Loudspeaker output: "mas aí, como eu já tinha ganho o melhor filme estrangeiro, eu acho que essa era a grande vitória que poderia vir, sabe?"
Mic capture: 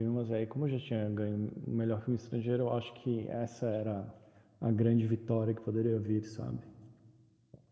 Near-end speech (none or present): none